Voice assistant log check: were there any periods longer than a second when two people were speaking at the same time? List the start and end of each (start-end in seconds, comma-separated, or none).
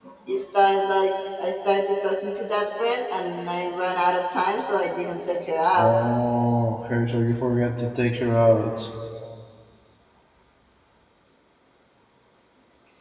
none